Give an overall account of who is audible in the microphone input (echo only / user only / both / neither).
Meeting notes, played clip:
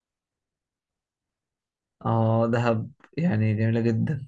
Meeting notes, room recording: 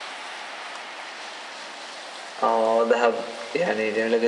echo only